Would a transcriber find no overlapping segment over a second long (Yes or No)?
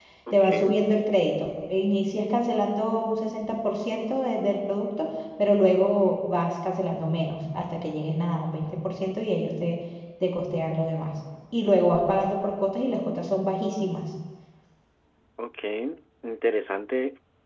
Yes